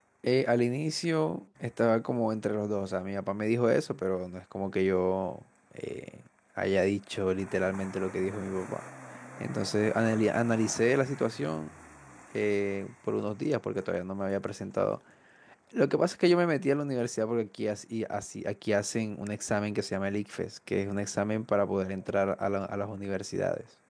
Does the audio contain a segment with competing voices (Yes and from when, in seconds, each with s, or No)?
No